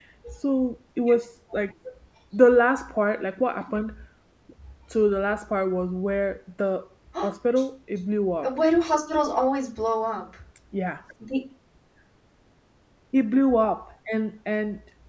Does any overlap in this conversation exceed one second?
No

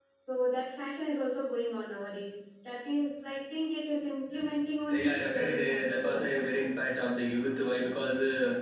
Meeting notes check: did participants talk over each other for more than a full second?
Yes, from 4.8 s

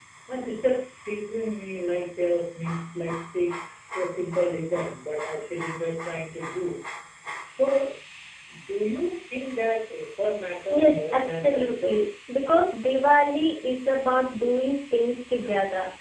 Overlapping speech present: Yes, from 10.7 s

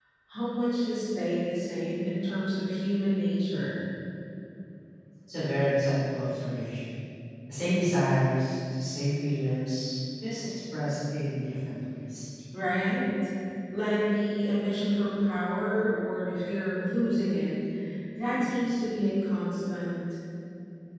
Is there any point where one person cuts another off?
No

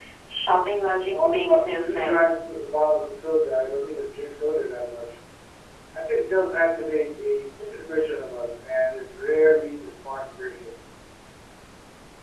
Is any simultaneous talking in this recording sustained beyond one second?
Yes, from 1.1 s

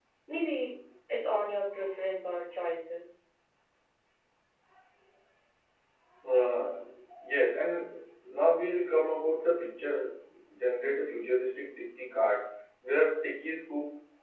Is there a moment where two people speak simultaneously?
No

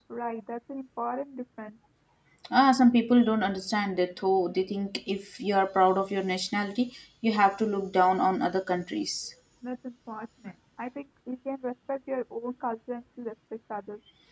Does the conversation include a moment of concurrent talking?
No

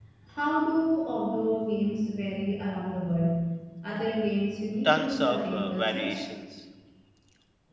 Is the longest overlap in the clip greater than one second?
Yes, from 4.8 s

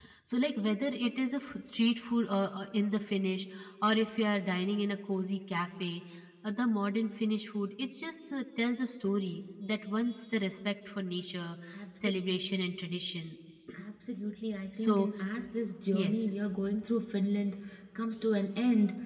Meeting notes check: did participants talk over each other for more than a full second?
No

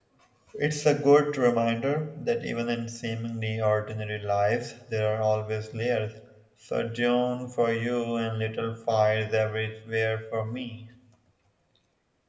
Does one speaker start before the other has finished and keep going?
No

